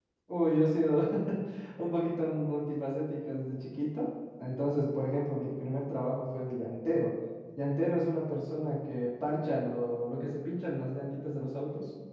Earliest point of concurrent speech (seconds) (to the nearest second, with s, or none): none